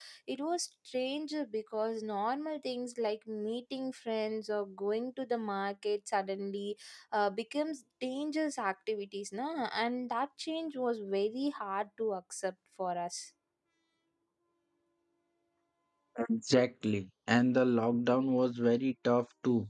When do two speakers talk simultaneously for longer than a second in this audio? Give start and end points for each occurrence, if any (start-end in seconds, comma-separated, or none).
none